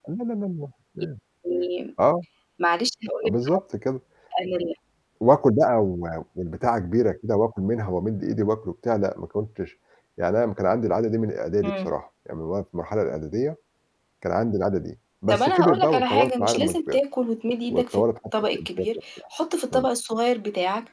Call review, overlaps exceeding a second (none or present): present